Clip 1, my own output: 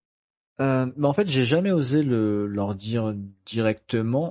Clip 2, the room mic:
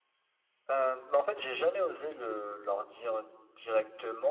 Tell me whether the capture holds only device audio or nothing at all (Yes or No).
Yes